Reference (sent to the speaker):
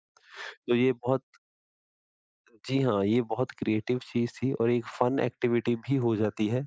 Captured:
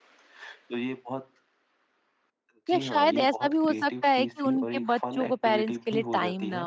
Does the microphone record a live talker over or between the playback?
Yes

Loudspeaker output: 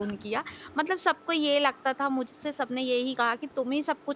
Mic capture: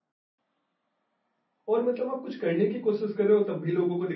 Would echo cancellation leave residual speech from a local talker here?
Yes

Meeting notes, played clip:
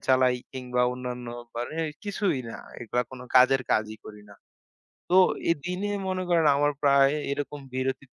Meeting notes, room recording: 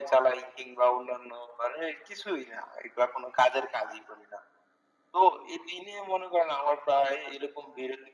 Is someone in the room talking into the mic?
No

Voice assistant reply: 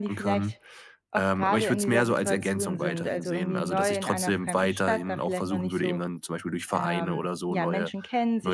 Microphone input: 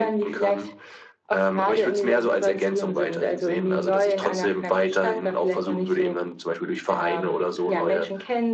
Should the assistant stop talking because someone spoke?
No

